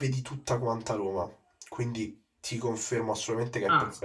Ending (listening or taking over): listening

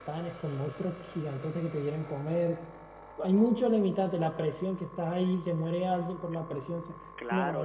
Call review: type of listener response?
taking over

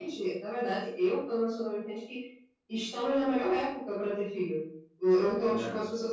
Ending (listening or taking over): listening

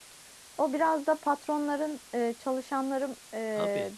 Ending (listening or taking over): listening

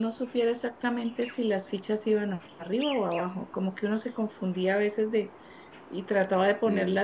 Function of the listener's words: listening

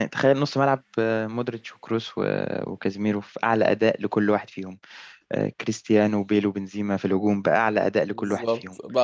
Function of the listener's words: taking over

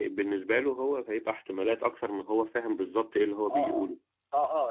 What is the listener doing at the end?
taking over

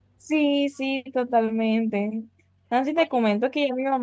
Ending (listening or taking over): listening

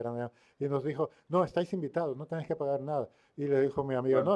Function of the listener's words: listening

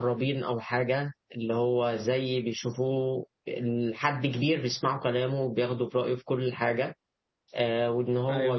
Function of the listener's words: listening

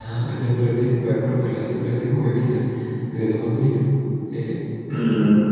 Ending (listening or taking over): taking over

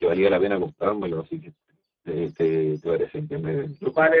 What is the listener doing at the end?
taking over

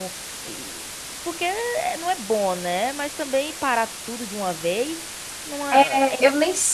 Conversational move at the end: taking over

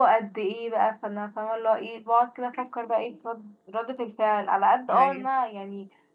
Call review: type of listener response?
listening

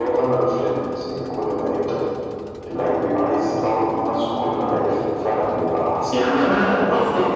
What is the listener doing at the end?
taking over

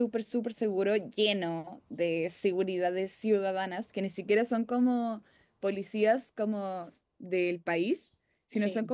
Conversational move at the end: listening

